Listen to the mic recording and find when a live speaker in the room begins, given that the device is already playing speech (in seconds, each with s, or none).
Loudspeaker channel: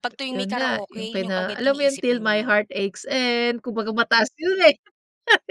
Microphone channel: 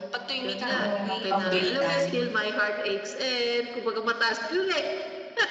0.7 s